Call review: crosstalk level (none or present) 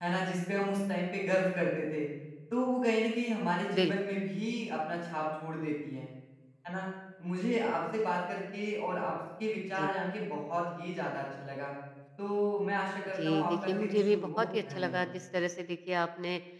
present